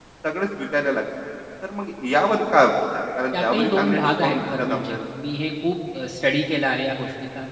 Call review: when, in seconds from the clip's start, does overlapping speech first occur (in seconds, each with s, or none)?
3.3 s